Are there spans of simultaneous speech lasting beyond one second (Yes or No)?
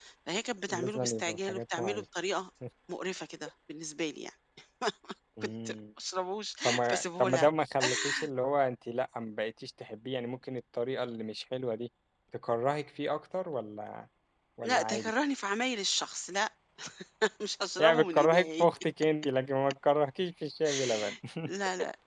Yes